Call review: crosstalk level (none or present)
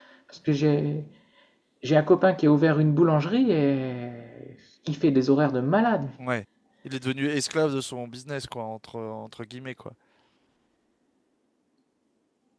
none